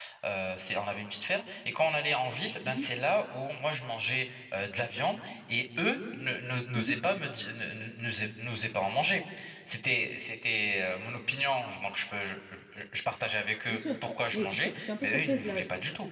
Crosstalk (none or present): present